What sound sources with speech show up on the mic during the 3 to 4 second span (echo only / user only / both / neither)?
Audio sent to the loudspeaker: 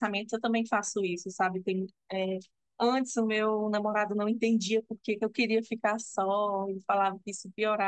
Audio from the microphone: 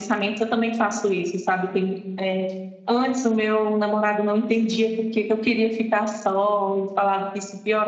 echo only